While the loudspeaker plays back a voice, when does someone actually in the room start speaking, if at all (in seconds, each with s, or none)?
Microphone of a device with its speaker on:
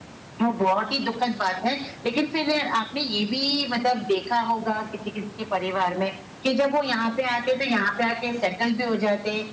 none